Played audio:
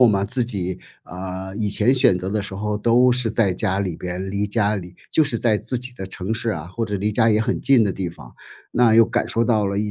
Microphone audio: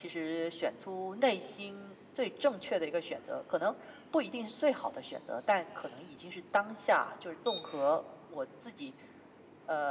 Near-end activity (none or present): present